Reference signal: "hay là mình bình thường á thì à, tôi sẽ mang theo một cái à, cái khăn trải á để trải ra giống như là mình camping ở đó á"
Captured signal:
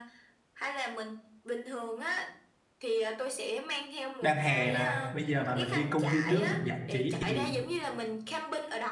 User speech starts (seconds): 4 s

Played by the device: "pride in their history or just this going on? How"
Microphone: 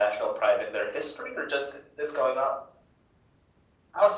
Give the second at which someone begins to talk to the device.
none

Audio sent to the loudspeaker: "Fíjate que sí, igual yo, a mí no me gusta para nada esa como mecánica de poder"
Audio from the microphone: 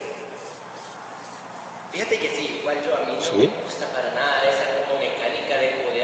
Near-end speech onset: 3 s

